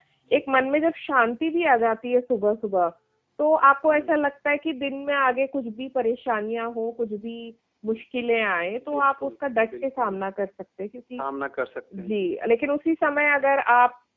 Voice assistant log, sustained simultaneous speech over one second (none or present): none